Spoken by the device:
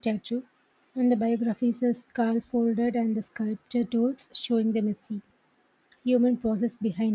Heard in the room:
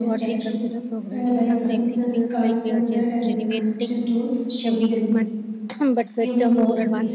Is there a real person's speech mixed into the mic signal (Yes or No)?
Yes